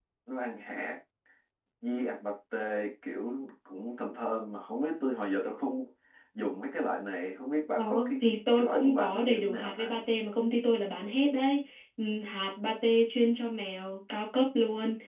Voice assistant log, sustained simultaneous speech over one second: present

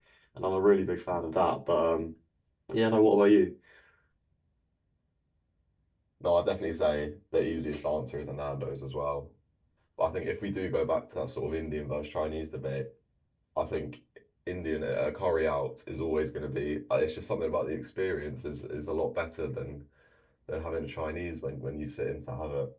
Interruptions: none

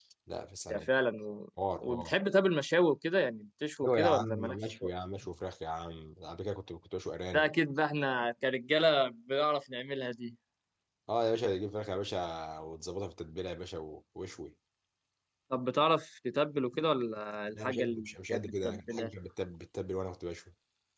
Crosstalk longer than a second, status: present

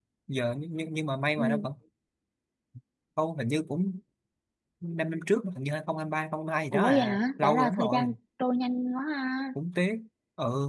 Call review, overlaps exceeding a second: present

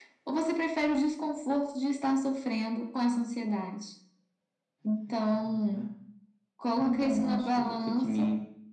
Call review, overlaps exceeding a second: present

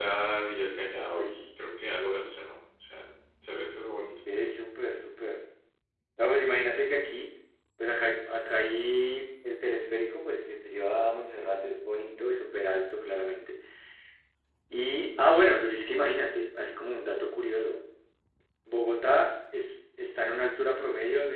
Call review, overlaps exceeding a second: none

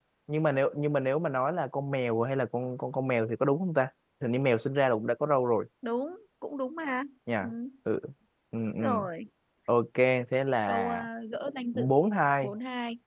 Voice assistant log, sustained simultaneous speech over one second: none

